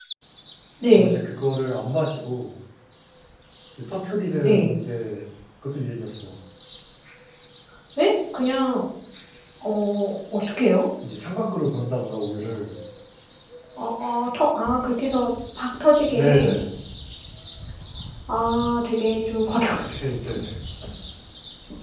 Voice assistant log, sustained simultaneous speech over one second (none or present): none